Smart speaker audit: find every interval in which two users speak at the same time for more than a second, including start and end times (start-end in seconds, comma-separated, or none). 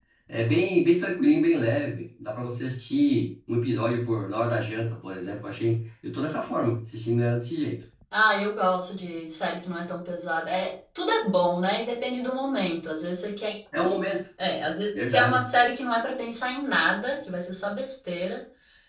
none